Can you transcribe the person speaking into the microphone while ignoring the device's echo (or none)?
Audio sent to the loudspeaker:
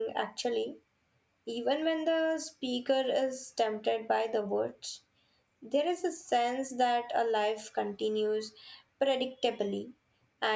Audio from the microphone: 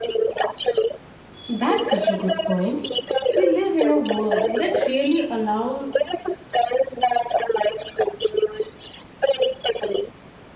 That's such a good point. We live in a world that really allows